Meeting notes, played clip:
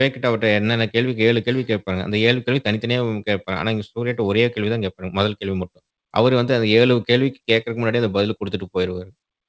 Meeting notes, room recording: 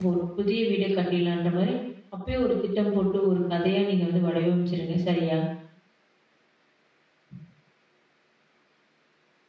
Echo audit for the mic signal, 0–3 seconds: user only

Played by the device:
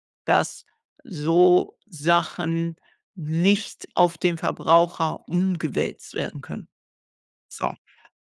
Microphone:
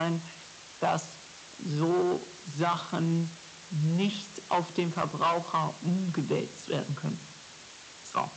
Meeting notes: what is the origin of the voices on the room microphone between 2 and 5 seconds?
echo only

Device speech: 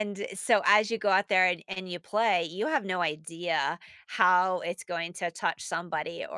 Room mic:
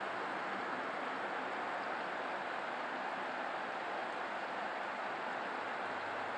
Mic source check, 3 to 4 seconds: neither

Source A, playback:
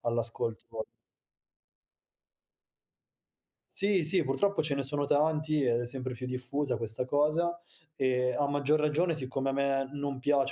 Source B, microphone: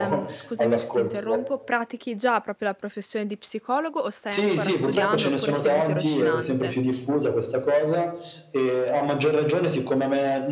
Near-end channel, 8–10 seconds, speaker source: echo only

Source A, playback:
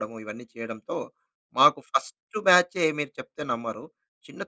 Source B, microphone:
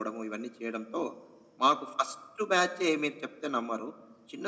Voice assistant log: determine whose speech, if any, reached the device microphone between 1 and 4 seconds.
echo only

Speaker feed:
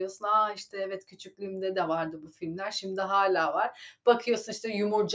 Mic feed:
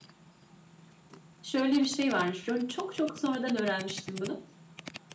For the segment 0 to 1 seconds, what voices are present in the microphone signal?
neither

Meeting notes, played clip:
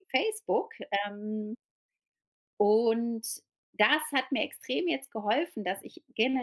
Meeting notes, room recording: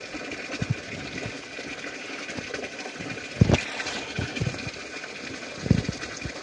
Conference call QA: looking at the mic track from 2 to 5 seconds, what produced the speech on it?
neither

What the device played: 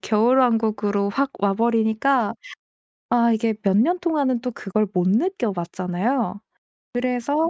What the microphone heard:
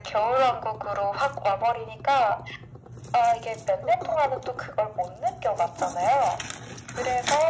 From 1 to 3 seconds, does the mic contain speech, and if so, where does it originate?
echo only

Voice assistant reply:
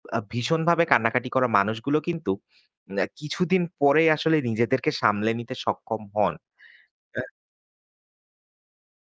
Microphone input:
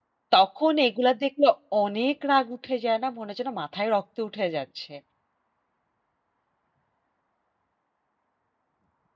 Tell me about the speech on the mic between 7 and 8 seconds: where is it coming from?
neither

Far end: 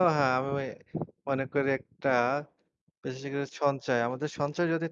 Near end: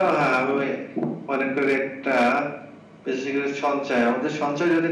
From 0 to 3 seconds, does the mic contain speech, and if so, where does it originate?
echo only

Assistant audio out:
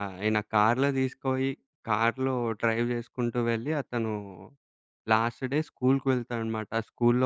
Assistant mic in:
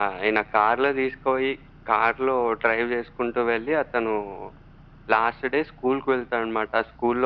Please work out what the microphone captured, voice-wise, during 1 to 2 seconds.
echo only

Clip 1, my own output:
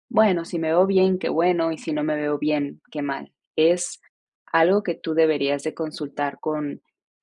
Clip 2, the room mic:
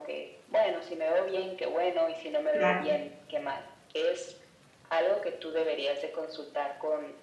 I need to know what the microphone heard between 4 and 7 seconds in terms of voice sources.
echo only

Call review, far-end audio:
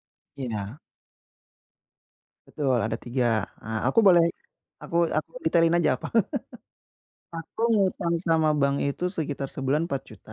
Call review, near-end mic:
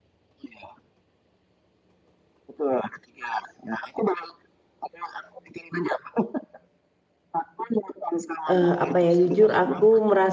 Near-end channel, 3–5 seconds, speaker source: echo only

